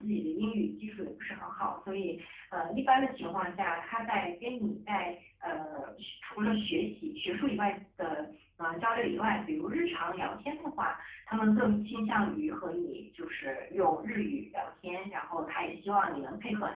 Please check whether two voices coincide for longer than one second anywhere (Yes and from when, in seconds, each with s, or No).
No